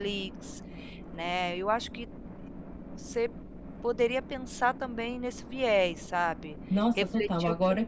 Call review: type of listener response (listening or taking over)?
taking over